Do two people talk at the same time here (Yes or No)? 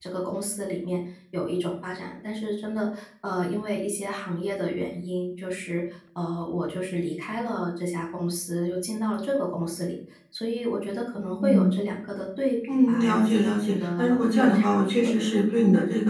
Yes